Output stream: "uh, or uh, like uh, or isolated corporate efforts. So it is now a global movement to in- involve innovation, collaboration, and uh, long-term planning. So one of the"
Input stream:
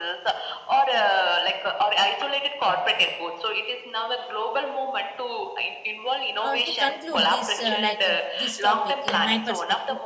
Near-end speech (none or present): present